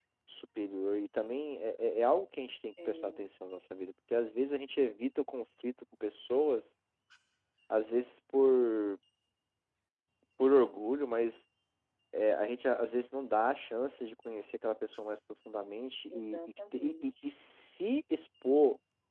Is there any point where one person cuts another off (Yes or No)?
Yes